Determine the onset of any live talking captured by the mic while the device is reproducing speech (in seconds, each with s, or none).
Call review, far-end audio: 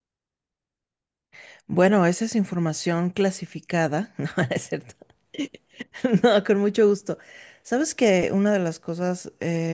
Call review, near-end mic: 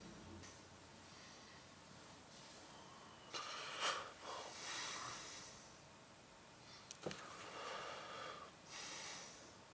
none